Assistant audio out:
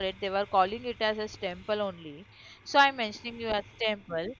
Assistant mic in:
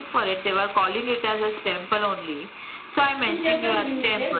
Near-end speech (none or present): present